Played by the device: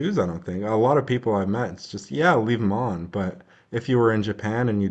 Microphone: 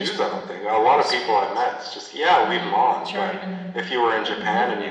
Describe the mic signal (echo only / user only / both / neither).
both